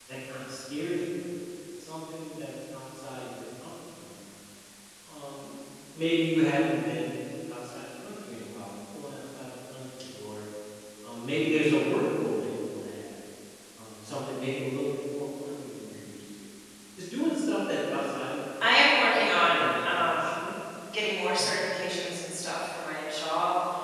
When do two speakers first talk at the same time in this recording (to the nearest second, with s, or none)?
19 s